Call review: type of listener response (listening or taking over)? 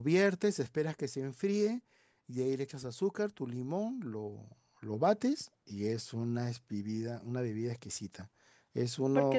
taking over